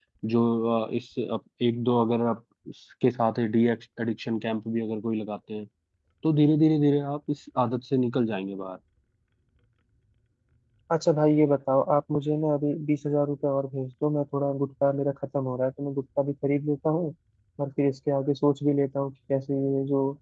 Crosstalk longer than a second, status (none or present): none